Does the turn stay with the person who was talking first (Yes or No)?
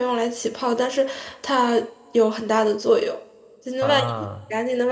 Yes